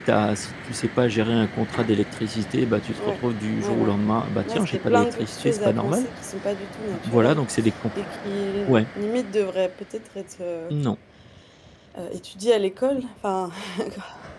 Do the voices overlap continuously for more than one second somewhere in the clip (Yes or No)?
Yes